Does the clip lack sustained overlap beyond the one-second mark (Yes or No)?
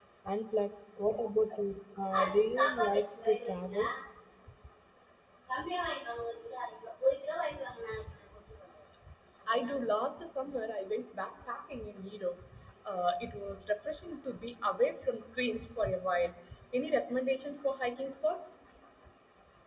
No